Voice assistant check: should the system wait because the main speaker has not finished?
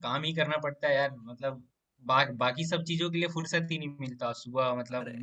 Yes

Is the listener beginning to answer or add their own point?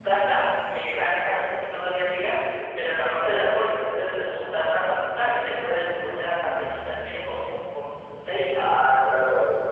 Yes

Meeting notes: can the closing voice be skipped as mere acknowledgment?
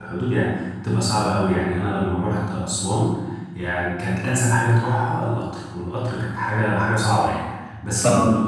Yes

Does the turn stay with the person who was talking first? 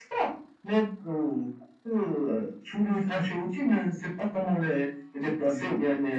Yes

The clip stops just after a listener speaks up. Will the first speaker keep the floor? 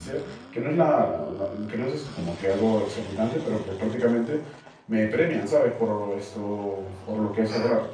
Yes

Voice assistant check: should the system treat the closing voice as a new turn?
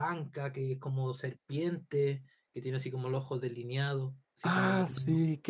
Yes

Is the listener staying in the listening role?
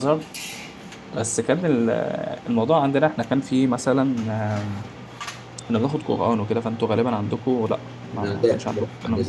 No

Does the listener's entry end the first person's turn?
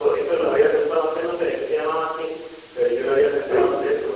No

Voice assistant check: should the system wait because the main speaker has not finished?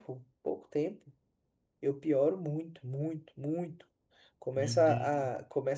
Yes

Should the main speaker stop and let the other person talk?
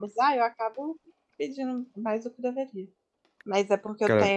No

